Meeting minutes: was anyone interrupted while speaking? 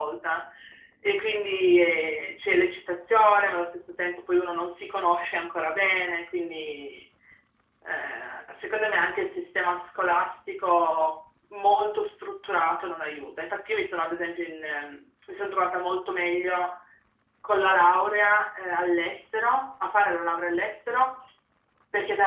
No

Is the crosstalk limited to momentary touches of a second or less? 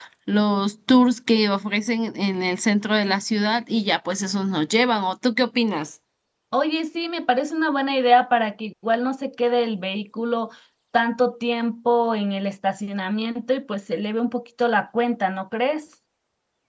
Yes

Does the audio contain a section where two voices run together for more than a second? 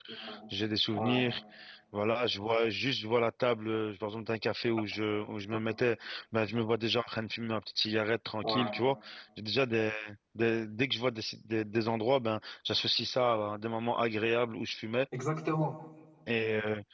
No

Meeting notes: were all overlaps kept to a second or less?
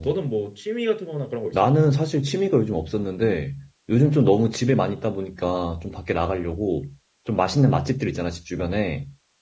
Yes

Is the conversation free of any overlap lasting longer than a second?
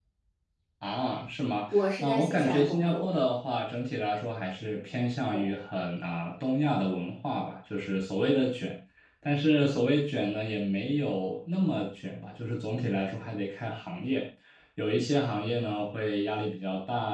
No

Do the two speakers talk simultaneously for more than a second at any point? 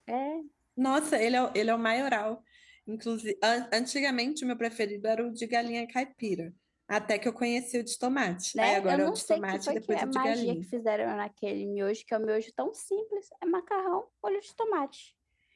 Yes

